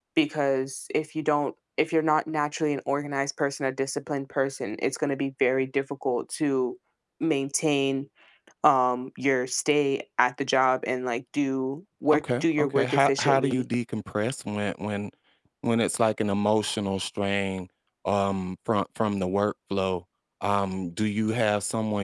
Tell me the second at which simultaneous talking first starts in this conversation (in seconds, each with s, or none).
12.1 s